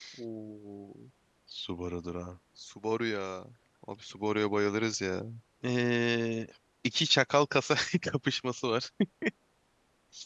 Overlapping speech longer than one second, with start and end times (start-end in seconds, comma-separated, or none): none